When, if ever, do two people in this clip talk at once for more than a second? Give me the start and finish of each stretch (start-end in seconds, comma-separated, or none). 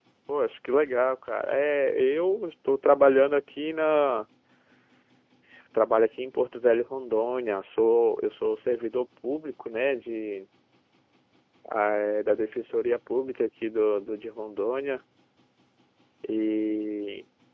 none